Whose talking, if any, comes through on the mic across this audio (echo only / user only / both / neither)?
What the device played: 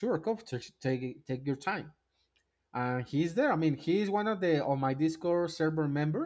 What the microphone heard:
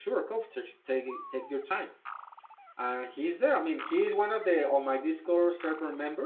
echo only